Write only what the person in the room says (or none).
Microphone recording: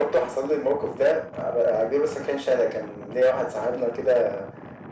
none